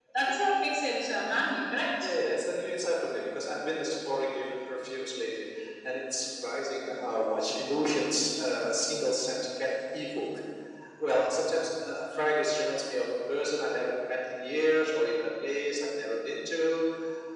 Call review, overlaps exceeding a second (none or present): none